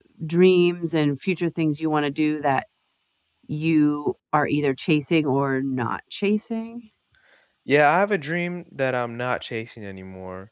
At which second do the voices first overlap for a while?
none

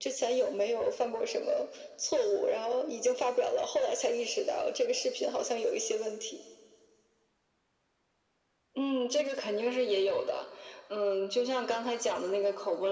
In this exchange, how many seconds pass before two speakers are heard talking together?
none

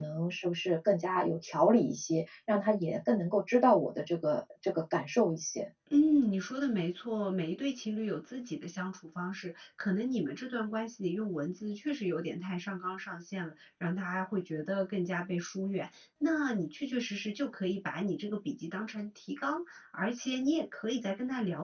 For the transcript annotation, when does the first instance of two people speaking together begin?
none

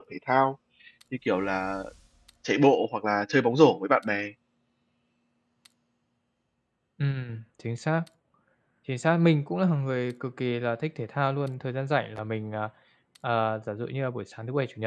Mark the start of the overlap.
none

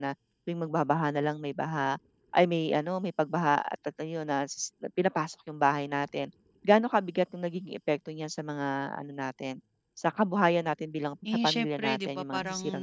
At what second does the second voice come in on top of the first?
11.2 s

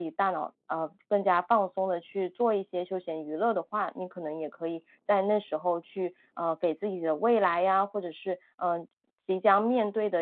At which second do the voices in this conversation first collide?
none

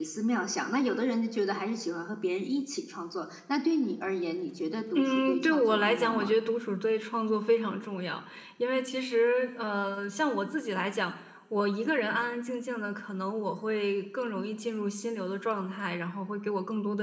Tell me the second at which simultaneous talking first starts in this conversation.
5.0 s

